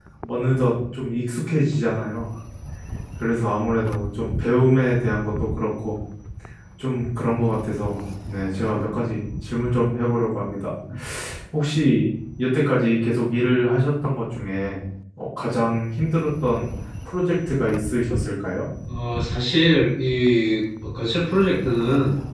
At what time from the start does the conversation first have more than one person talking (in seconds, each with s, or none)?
none